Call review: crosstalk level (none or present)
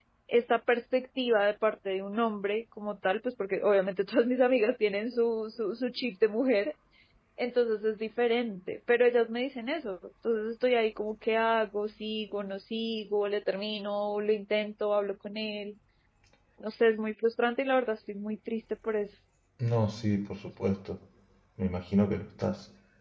none